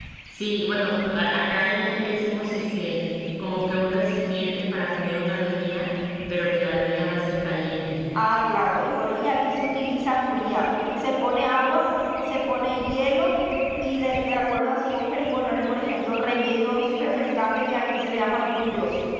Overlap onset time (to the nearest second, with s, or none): none